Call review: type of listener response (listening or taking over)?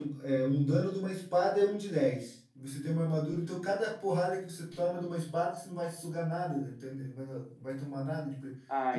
taking over